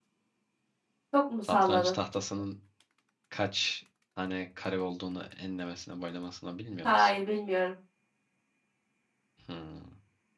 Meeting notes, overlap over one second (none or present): none